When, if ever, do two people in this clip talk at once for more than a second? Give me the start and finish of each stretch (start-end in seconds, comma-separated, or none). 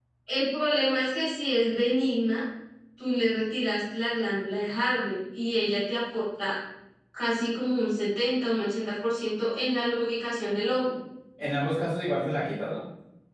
none